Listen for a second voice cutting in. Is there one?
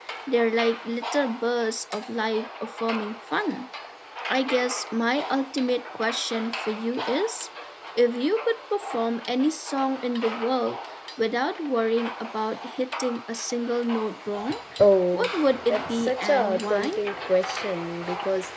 Yes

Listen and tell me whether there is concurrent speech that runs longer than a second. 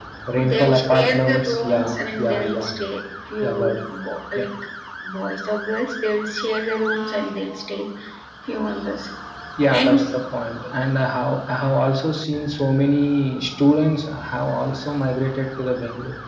Yes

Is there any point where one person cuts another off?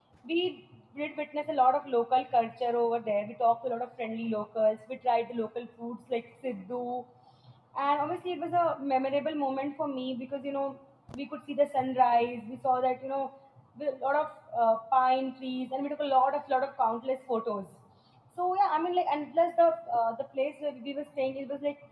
No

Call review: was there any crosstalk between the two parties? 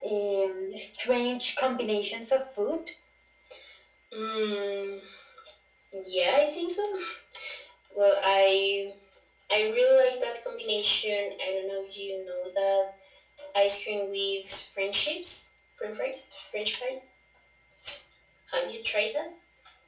No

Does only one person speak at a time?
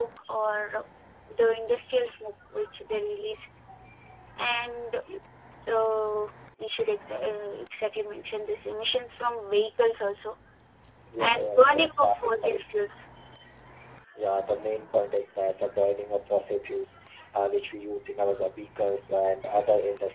No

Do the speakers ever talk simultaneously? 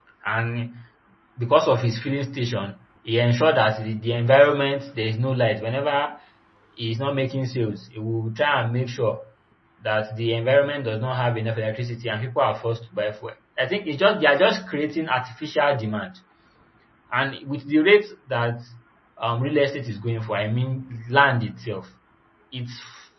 No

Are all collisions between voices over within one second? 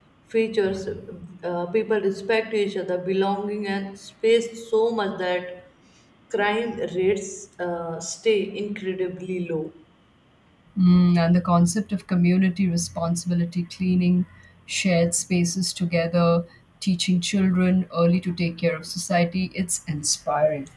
Yes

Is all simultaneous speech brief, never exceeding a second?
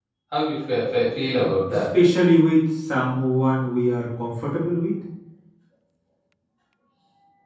Yes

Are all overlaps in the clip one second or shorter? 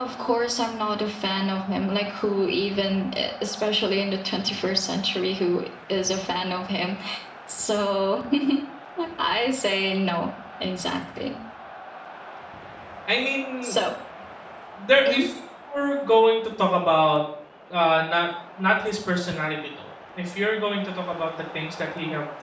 Yes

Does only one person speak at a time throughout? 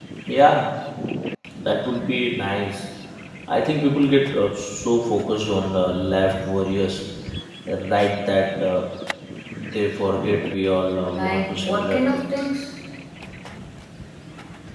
No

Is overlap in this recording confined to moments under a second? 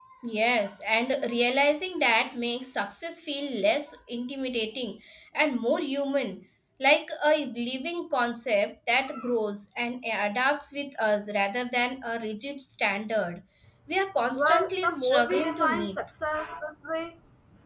No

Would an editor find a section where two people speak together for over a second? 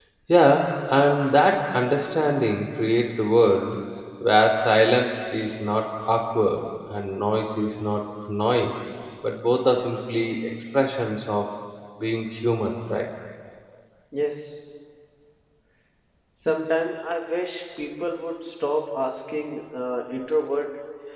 No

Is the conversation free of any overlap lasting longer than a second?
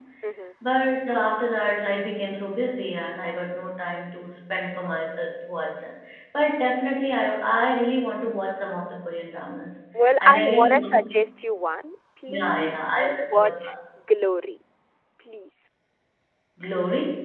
No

